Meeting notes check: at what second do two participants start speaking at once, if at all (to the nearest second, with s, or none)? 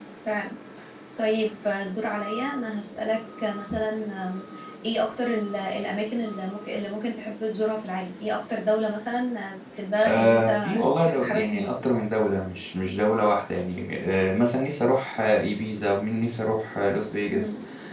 10 s